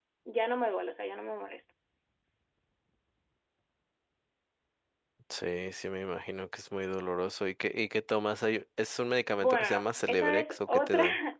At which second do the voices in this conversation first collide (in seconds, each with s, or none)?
9.4 s